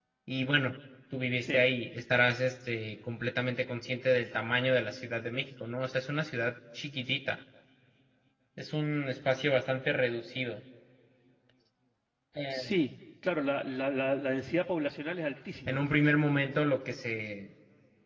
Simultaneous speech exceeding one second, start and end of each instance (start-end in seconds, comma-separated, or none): none